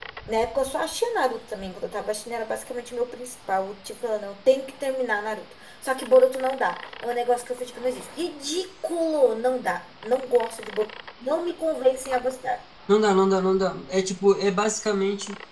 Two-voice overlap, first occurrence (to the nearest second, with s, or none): none